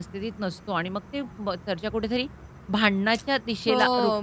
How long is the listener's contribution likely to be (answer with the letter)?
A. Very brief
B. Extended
A